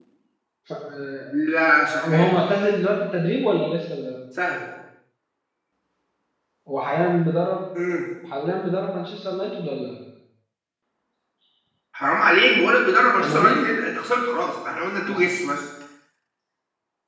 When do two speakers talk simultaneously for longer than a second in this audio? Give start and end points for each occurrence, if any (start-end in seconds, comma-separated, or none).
none